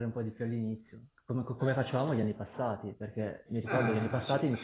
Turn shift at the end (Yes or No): No